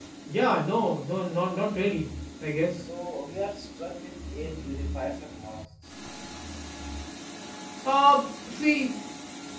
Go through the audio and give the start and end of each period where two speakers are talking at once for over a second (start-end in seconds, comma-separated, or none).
none